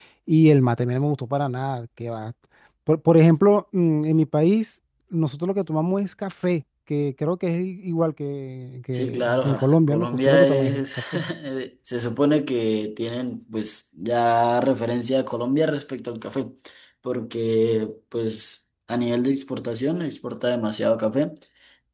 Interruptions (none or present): present